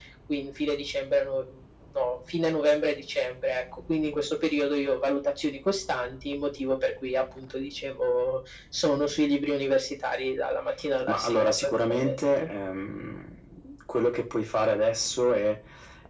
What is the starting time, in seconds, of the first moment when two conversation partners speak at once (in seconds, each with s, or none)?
11.0 s